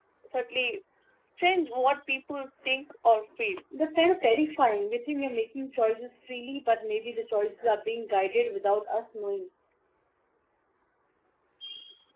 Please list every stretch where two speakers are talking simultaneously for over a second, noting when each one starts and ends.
none

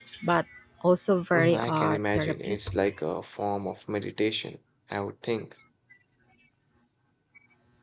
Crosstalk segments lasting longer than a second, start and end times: 1.3-2.9

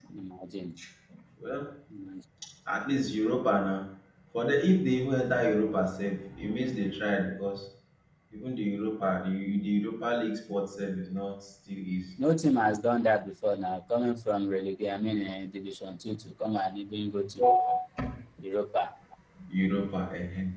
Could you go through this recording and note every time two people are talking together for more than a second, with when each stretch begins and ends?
none

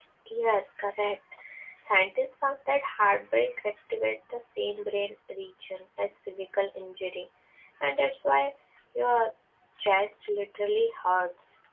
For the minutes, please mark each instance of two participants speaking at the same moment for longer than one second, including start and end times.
none

